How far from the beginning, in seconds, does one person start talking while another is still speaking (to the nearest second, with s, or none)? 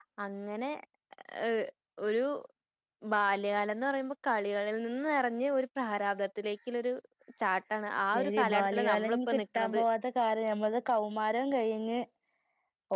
8 s